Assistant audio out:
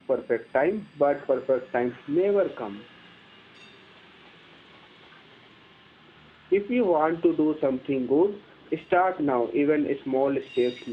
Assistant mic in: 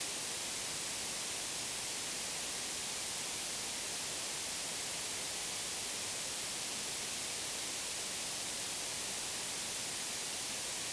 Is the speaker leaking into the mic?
No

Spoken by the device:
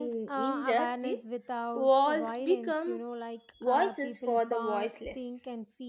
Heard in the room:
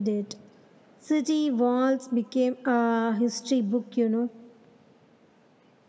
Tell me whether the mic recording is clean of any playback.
Yes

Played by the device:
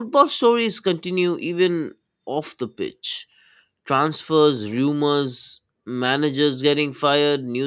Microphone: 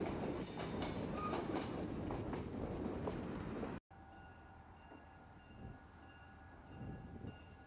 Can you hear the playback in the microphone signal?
No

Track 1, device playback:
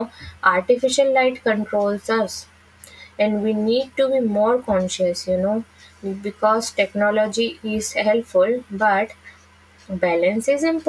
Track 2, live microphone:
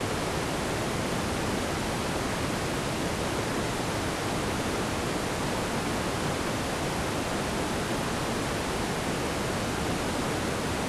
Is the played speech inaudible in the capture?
Yes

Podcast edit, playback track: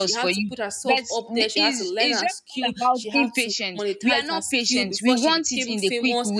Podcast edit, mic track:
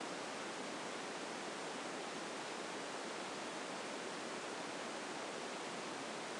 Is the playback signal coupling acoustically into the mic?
No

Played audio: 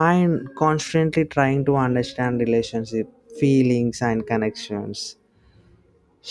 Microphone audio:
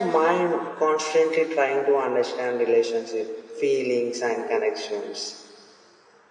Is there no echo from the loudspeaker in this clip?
No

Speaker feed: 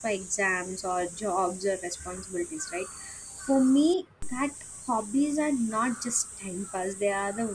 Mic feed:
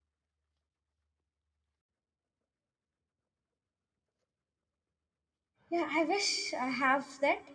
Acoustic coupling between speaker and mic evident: No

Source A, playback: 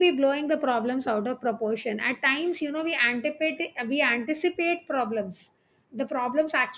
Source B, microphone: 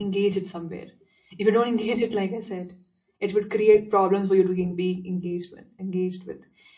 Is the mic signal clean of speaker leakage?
Yes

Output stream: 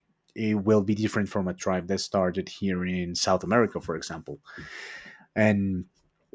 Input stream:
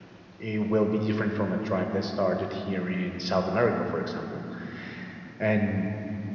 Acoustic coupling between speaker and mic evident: Yes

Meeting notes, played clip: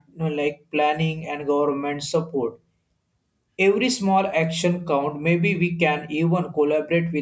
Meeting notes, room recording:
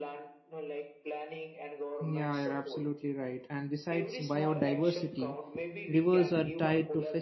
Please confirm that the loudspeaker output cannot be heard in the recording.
No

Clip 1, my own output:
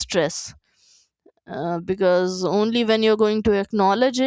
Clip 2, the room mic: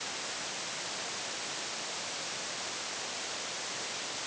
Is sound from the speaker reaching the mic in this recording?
No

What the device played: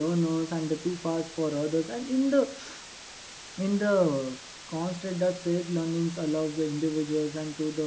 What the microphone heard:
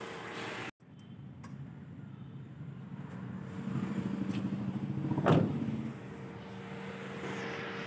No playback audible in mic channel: Yes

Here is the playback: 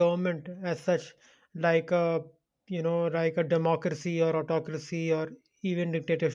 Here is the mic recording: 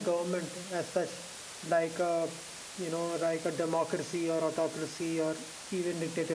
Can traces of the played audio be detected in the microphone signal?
Yes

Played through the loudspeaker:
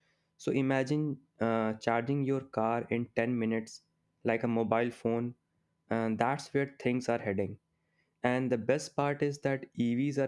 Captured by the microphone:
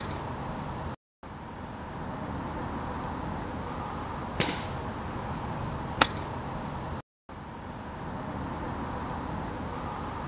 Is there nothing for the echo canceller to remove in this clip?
Yes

